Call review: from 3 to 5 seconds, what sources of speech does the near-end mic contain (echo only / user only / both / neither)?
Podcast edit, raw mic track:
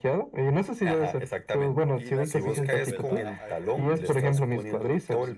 both